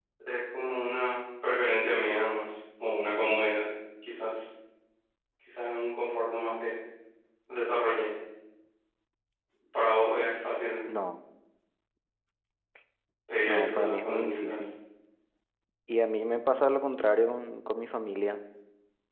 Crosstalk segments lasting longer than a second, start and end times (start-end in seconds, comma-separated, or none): 13.4-14.7